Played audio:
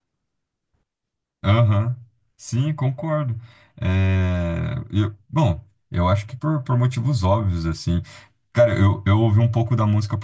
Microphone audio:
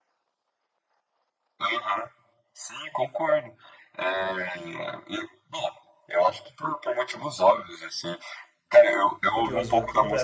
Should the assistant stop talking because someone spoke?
Yes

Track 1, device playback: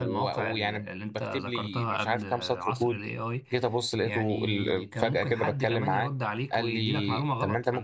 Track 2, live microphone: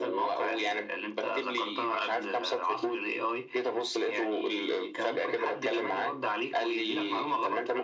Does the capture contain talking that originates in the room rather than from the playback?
No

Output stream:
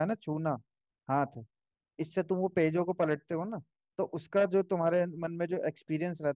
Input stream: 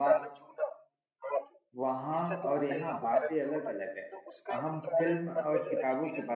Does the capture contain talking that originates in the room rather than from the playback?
Yes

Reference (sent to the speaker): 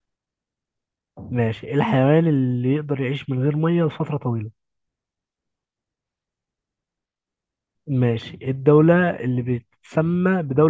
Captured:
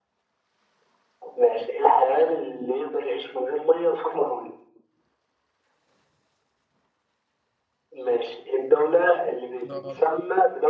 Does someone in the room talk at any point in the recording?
Yes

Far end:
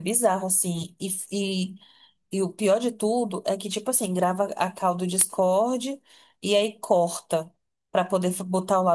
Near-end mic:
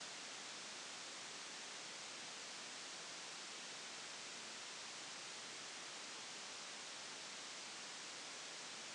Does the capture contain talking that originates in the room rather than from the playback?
No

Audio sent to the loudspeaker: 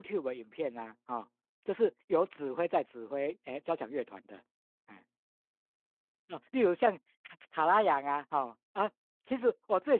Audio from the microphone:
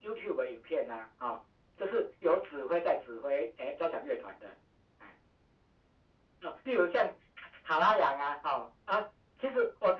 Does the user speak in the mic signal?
No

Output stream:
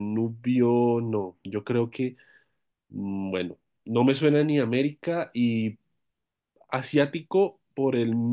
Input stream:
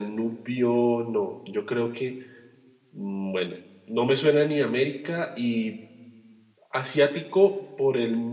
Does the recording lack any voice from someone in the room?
Yes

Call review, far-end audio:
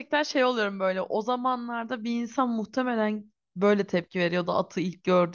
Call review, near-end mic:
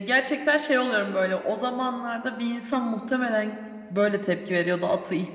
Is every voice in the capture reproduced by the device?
Yes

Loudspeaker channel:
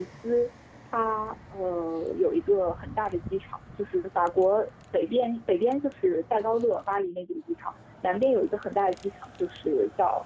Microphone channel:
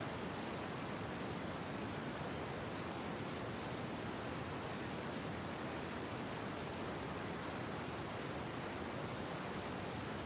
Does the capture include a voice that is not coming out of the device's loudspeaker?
No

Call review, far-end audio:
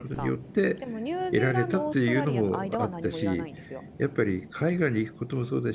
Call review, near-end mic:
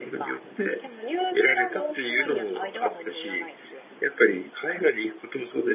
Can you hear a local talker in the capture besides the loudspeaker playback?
No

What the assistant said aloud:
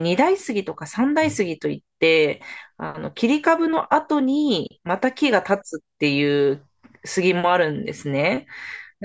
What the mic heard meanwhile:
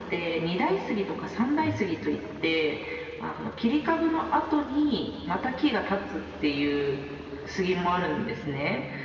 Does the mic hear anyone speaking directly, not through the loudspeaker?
No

